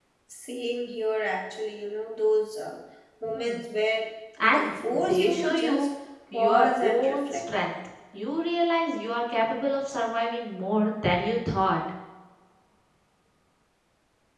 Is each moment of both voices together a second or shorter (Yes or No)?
No